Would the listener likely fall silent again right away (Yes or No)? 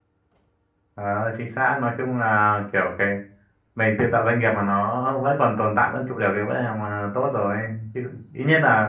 Yes